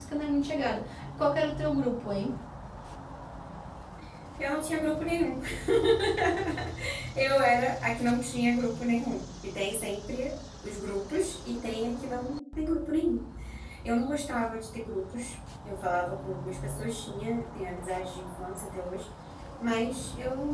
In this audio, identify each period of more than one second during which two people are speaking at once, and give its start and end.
none

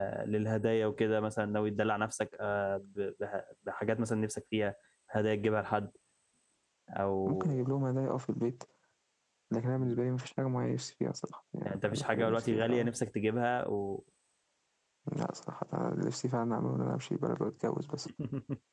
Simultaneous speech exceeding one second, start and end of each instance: 11.6-12.9

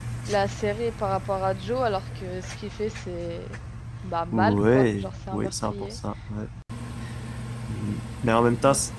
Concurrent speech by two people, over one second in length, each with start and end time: 4.3-6.0

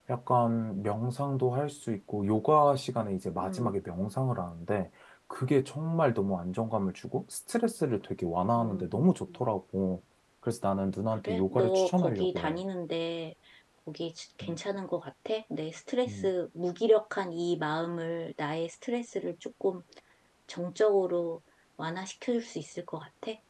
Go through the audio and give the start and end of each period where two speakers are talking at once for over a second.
11.2-12.6

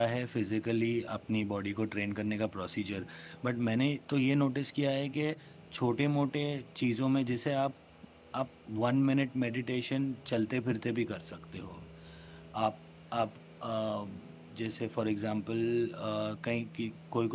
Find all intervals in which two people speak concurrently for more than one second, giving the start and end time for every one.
none

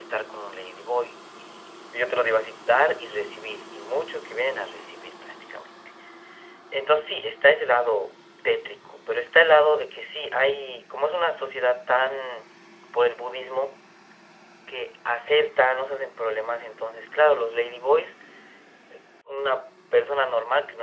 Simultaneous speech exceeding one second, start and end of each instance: none

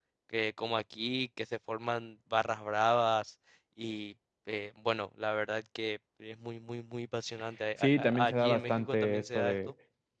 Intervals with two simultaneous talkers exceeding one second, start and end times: 7.8-9.6

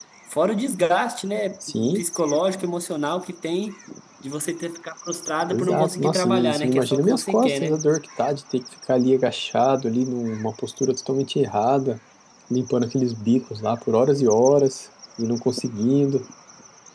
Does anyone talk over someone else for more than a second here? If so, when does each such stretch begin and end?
5.5-7.8

